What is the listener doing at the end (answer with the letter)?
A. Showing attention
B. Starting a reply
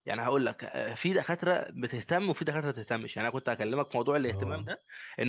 A